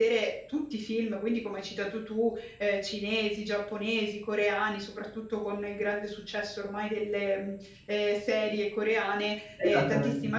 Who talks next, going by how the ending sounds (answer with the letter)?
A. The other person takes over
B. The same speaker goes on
B